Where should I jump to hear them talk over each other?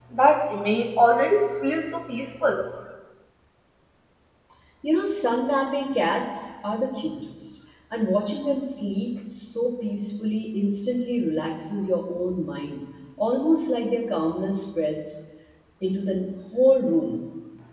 none

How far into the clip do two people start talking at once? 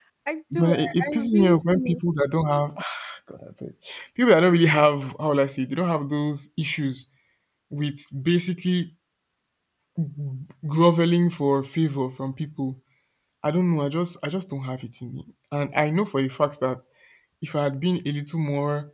0.6 s

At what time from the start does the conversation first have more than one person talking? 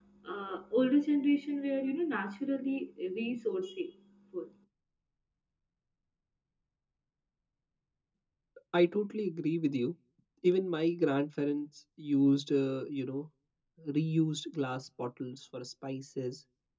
none

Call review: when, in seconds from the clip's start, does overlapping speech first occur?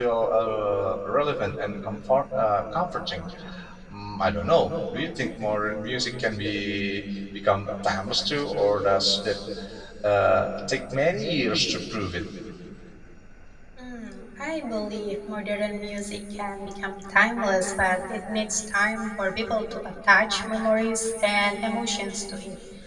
none

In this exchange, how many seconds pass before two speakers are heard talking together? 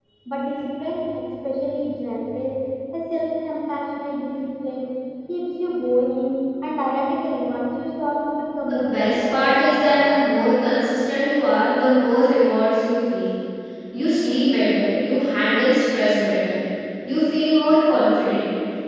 8.7 s

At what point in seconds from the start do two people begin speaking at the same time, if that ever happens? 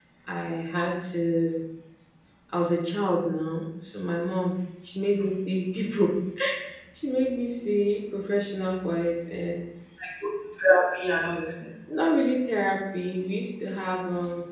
none

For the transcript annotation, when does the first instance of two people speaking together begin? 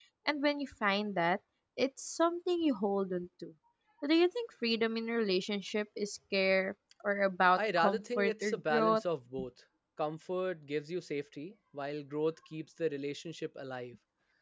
7.6 s

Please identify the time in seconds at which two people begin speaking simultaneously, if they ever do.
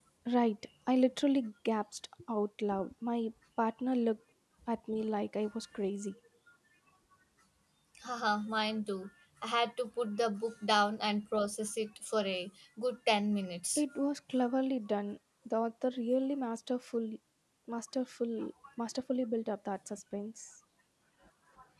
none

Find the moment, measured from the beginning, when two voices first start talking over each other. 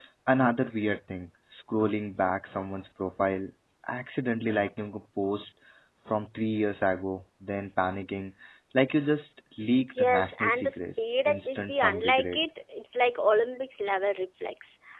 9.9 s

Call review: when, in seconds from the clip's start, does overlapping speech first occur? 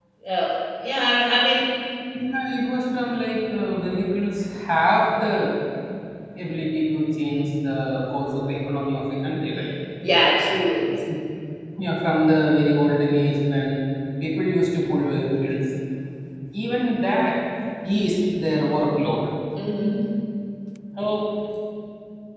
none

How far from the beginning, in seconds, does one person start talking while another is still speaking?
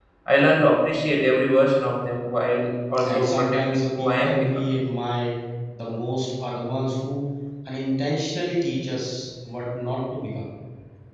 3.0 s

